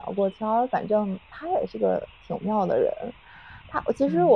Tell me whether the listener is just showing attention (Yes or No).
Yes